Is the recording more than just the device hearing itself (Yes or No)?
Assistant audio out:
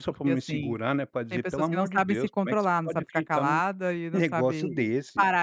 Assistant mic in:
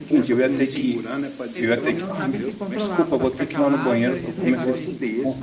Yes